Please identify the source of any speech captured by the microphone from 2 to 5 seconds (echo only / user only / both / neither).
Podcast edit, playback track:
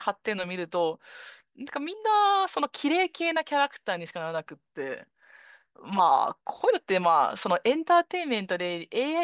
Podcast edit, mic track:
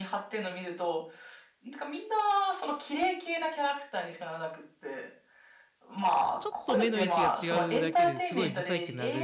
echo only